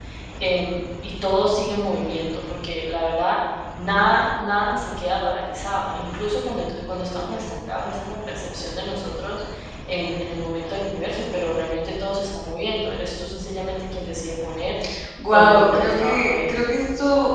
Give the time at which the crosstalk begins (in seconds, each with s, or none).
15.3 s